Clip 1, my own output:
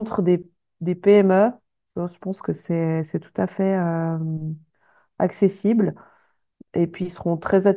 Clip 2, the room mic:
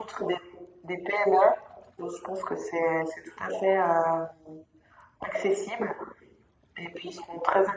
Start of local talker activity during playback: none

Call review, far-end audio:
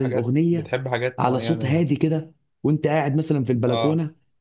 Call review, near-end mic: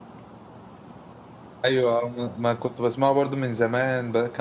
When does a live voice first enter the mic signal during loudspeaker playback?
1.6 s

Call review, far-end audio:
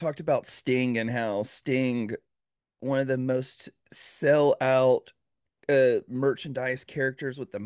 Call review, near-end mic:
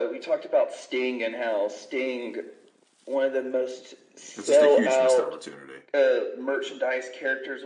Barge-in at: 4.3 s

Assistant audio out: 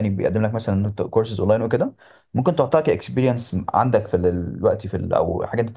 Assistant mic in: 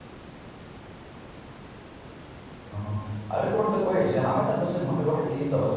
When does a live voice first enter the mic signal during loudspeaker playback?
2.7 s

